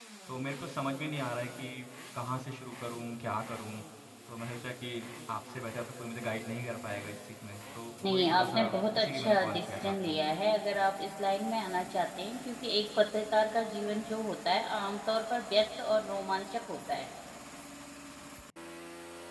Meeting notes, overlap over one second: present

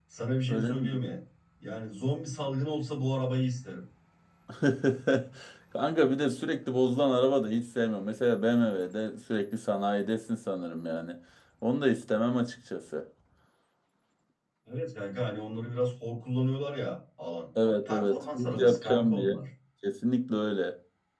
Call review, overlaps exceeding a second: present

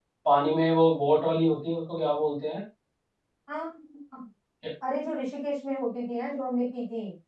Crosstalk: none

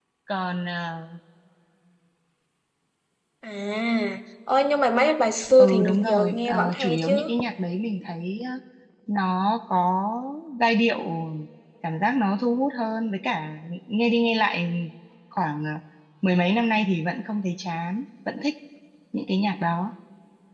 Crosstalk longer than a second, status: present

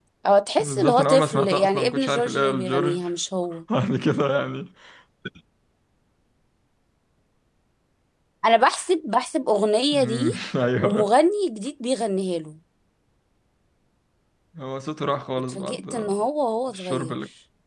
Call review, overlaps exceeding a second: present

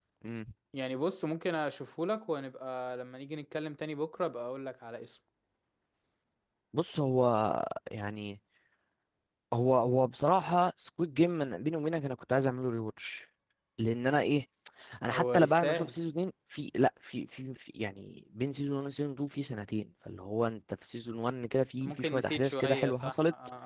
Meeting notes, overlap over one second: present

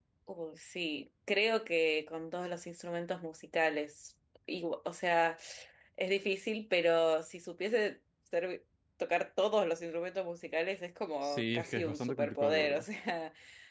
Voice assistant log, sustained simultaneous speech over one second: present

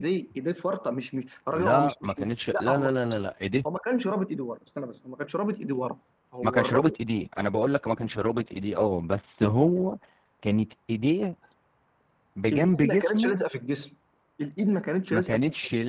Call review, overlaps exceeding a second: present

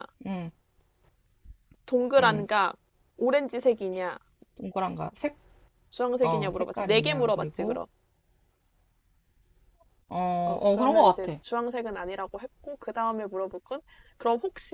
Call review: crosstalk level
present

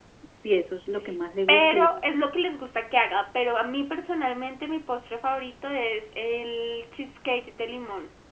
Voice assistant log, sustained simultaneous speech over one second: none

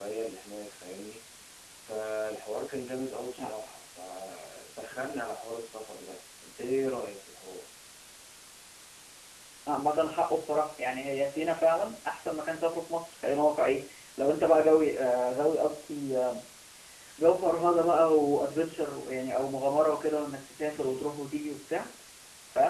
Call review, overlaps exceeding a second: none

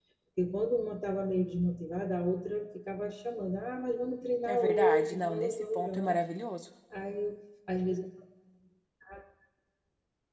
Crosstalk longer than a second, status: present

